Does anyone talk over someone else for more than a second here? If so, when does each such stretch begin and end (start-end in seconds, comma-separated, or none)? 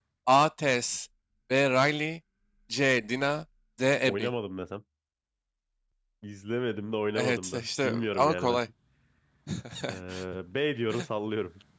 7.2-8.6